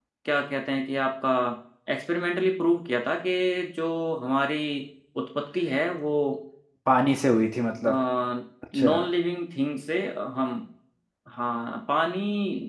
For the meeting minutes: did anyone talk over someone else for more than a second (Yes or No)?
No